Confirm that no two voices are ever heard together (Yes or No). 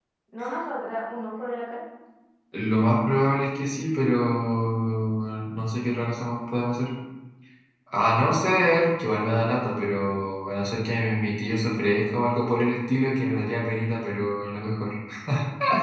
Yes